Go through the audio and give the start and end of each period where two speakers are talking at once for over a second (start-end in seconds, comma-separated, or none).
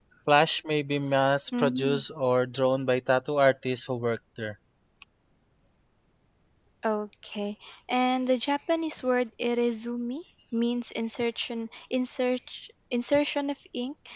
none